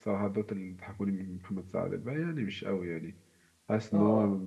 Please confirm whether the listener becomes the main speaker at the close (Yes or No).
No